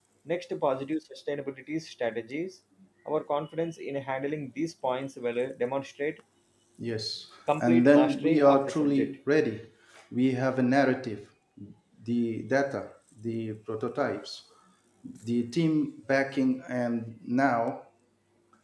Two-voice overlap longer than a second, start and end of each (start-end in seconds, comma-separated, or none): 7.6-9.1